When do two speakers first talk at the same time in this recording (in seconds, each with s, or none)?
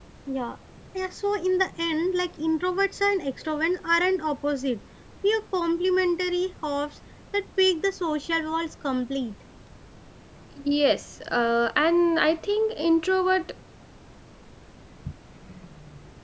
none